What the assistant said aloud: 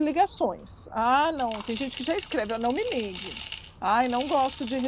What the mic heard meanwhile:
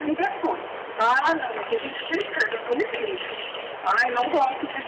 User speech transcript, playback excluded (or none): none